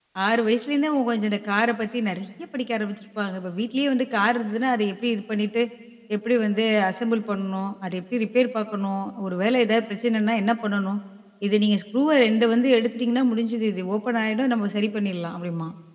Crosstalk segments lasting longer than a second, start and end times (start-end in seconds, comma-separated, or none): none